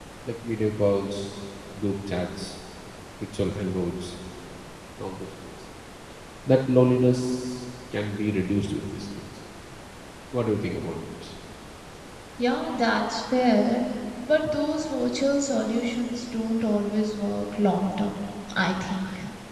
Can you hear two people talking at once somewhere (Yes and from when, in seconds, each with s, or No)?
No